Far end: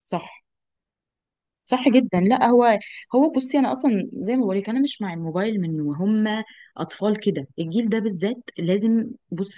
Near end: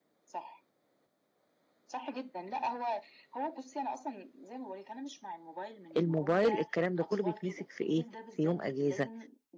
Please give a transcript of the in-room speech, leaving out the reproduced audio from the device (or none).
الموبايل الكلام ده كله بيتمسك في ايه في يوم اجازه